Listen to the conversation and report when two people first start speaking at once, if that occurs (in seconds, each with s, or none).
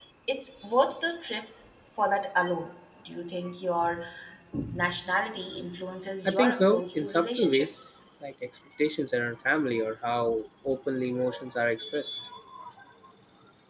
6.2 s